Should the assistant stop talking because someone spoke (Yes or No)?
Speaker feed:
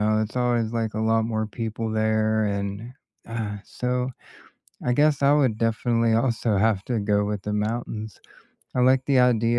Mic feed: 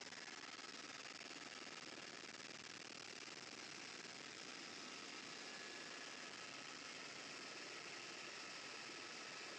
No